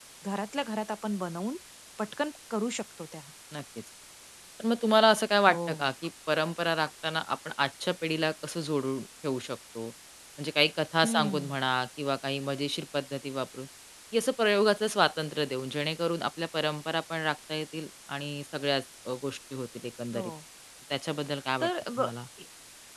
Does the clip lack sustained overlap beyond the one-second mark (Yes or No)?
Yes